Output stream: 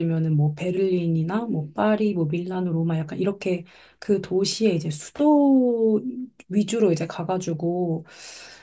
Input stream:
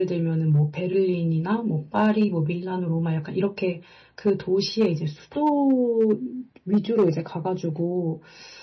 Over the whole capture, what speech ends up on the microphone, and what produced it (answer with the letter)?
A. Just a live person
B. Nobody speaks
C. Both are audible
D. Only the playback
D